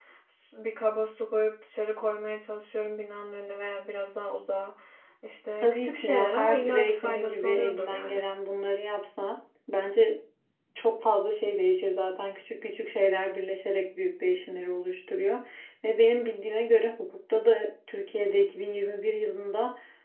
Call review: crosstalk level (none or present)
present